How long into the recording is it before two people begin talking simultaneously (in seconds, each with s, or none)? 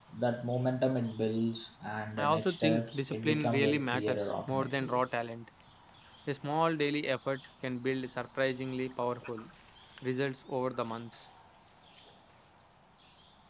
2.2 s